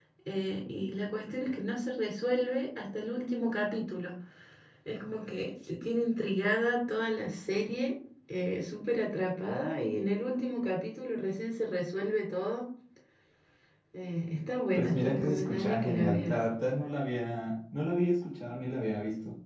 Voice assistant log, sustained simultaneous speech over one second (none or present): present